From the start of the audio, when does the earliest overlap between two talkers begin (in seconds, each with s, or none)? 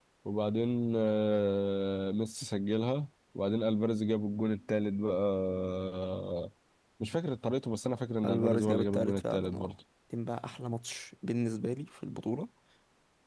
8.2 s